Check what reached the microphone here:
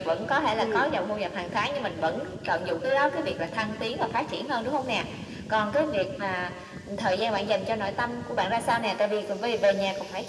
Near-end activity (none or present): present